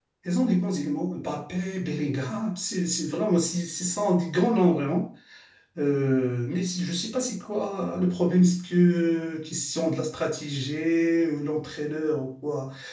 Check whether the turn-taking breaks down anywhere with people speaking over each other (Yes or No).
No